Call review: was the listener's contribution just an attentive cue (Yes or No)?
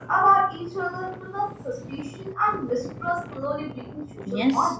No